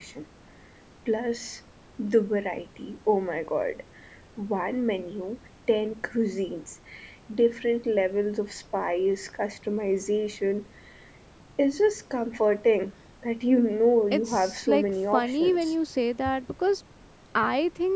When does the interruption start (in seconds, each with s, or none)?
14.1 s